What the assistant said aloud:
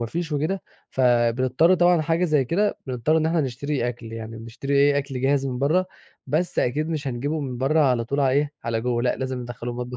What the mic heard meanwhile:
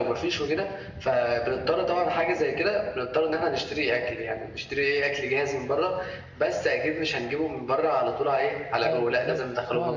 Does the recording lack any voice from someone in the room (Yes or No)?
No